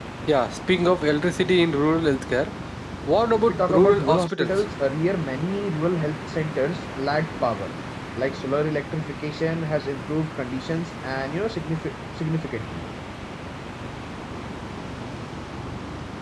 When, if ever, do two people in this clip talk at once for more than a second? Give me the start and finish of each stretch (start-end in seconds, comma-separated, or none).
3.3-4.7